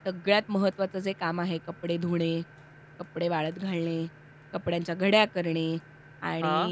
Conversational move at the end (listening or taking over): listening